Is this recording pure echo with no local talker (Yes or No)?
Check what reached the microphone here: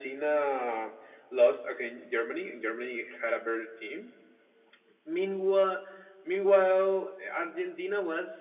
Yes